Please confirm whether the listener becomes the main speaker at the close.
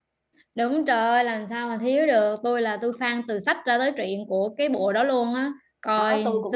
Yes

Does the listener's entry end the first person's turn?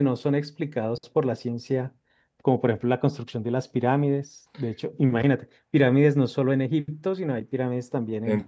Yes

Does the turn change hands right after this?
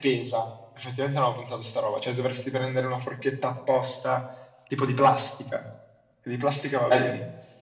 Yes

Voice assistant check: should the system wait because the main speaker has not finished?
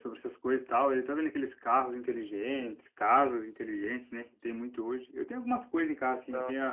Yes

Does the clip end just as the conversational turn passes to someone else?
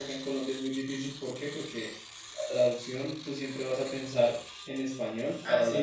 No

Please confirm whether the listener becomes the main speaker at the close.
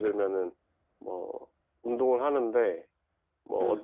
No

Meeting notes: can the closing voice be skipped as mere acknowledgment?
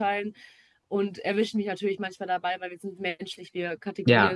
Yes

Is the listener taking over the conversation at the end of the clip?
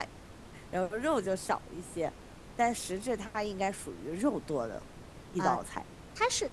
Yes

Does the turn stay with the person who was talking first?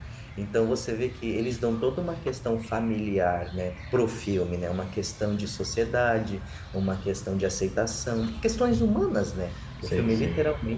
Yes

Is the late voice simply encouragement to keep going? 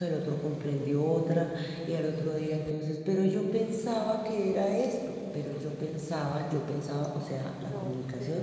Yes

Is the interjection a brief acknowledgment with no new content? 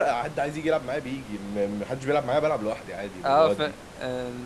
No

